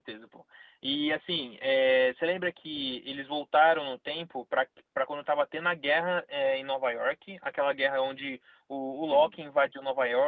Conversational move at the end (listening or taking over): listening